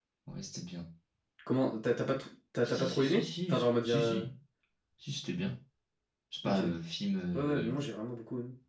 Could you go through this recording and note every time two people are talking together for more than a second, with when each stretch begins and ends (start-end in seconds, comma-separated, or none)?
2.8-4.3